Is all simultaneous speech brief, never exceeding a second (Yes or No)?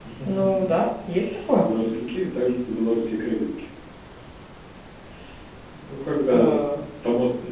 Yes